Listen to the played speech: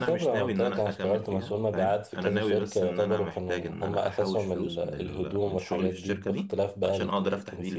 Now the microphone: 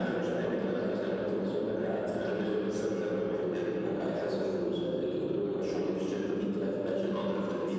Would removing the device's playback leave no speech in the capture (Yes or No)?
Yes